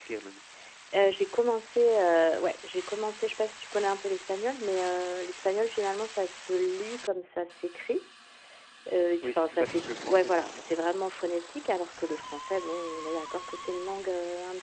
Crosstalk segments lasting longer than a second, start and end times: 9.2-10.6

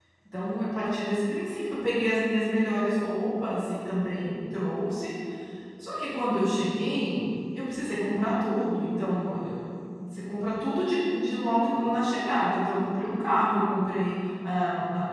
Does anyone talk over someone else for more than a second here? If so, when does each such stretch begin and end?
none

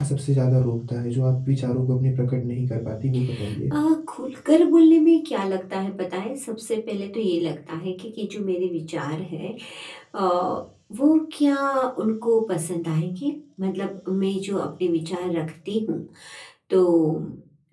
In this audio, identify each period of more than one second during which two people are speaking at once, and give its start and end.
none

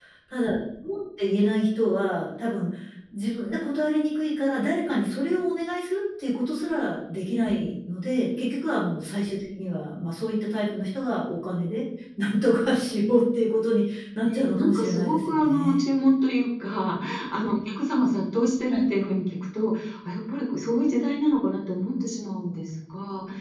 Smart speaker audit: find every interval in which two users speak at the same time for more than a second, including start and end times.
14.2-15.8

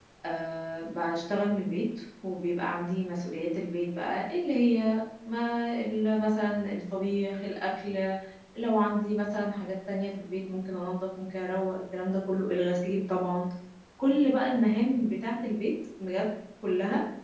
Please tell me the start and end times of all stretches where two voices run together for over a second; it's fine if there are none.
none

